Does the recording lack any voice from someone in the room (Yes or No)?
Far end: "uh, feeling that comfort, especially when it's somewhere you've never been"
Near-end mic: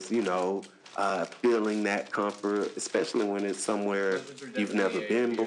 No